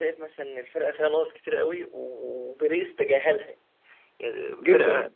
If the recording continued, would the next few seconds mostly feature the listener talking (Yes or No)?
No